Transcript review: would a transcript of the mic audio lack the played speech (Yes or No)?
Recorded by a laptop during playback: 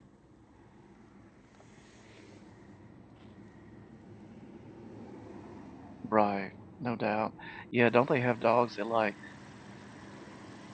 Yes